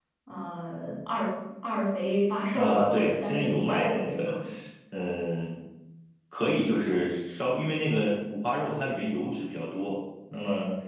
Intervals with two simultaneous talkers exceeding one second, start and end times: 2.5-4.4

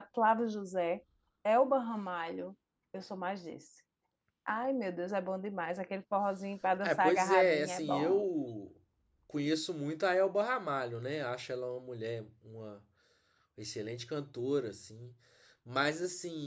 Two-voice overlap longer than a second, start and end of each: 6.8-8.2

